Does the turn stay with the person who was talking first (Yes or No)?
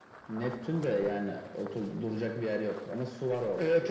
No